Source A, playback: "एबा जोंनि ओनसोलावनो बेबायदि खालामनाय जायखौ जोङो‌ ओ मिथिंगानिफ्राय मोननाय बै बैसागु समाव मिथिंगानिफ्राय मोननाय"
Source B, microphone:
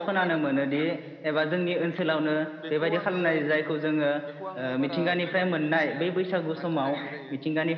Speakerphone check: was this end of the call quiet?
No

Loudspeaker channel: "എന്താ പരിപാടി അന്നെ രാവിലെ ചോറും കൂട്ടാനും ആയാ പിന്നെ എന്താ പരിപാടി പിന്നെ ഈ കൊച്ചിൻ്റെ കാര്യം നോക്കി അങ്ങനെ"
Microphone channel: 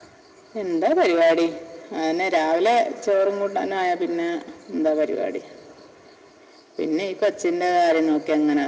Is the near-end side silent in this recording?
Yes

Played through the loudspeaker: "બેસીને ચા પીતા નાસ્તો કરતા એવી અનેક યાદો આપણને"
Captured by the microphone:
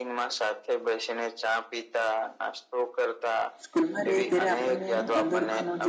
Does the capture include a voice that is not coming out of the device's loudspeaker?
Yes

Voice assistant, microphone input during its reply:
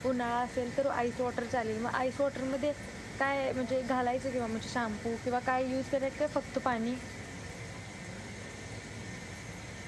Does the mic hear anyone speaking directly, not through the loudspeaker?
Yes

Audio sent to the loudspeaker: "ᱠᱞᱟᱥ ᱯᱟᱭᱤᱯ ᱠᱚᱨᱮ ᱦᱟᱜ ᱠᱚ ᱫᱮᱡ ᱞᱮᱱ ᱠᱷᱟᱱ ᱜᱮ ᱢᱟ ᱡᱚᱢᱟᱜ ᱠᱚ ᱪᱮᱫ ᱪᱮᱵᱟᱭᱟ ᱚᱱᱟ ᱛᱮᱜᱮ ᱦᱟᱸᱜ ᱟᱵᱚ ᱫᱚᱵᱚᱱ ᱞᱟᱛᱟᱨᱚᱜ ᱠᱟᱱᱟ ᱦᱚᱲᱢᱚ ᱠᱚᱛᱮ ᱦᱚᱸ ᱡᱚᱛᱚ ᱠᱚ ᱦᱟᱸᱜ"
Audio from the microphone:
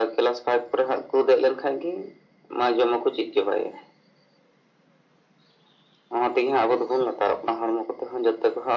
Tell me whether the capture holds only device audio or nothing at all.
Yes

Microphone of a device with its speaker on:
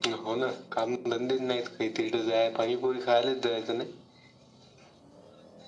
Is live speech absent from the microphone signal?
Yes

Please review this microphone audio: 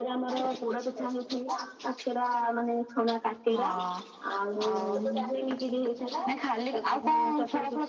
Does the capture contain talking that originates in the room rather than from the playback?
No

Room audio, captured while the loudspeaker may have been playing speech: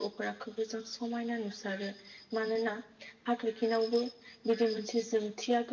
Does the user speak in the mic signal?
Yes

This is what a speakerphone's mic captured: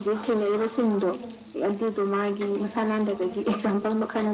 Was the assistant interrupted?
Yes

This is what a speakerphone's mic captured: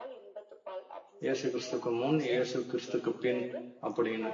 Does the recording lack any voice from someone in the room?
No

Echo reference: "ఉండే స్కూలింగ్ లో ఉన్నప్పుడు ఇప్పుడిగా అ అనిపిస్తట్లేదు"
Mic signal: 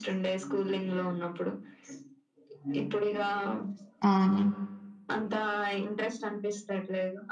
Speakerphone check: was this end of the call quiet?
No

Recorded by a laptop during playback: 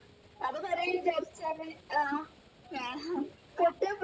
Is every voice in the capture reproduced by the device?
Yes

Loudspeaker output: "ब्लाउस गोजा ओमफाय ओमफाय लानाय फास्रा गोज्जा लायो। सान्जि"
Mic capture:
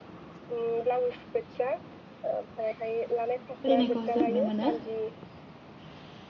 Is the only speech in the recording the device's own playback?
No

